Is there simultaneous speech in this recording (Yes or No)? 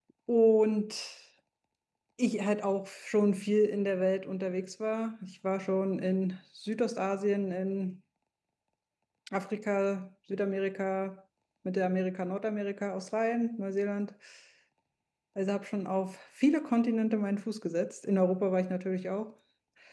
No